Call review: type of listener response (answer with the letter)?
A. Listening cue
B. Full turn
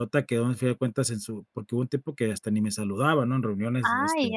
B